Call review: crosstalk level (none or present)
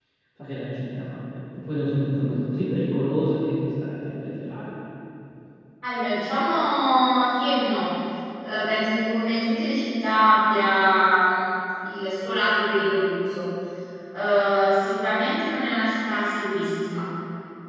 none